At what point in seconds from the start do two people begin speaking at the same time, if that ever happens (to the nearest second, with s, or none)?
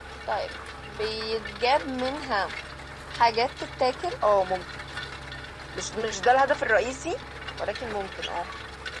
none